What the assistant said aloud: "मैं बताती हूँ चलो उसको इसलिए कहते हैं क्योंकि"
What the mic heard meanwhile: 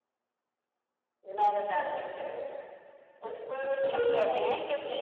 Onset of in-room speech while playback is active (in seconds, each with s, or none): 3.9 s